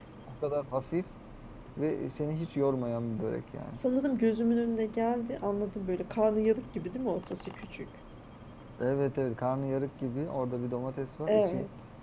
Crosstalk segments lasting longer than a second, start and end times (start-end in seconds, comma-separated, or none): none